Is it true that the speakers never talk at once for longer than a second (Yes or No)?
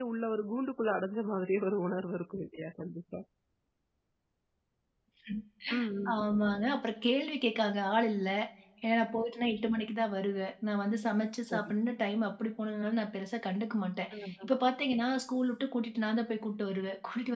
Yes